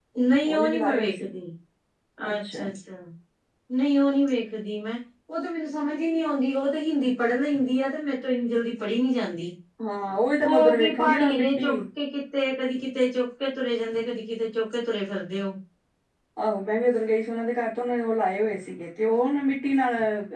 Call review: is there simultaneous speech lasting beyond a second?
Yes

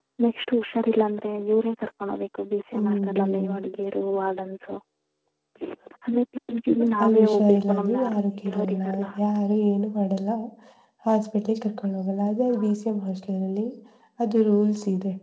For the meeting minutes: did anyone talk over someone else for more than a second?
Yes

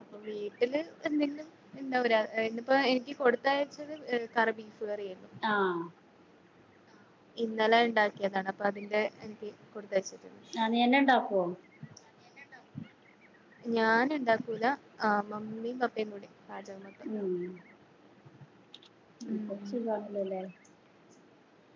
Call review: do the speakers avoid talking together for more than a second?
Yes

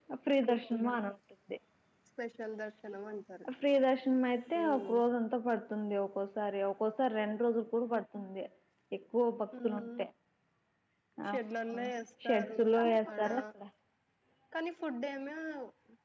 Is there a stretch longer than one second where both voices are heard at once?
No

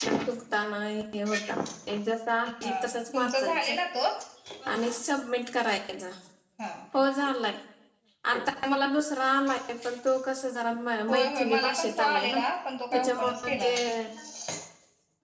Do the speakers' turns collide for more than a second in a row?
Yes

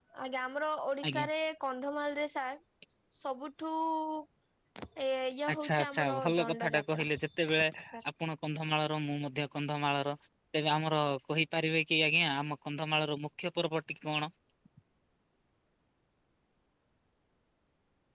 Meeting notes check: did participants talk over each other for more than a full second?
Yes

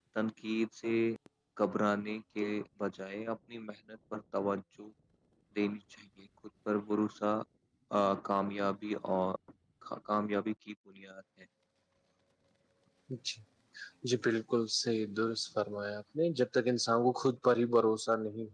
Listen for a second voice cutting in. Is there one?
No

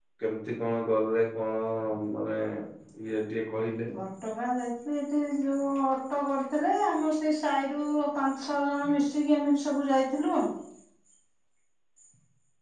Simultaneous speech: No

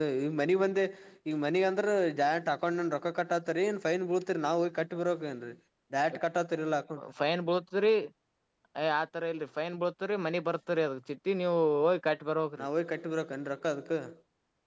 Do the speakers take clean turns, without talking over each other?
Yes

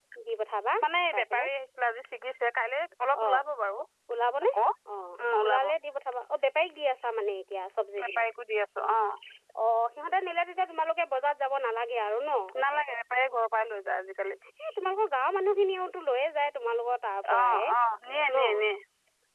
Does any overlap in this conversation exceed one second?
No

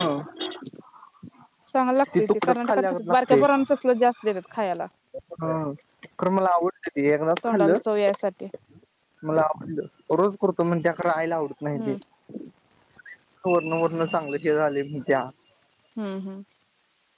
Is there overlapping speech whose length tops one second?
Yes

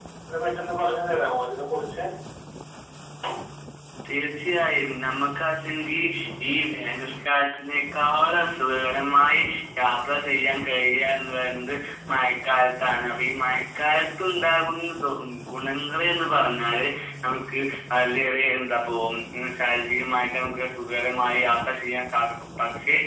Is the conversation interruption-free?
Yes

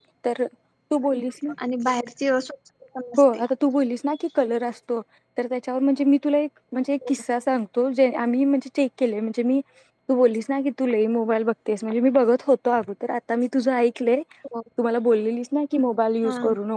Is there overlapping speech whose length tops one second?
No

